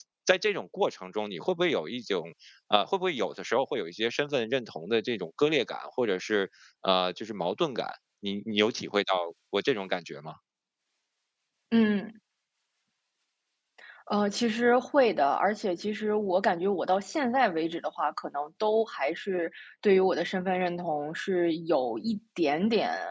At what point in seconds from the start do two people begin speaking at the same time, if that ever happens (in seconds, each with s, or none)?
none